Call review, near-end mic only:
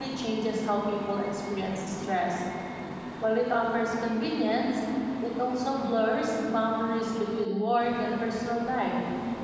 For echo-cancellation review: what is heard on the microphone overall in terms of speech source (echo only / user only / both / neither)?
user only